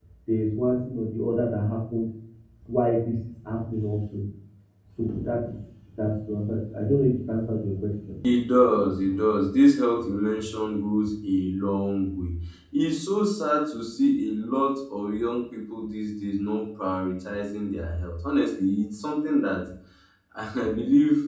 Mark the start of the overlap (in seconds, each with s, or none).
none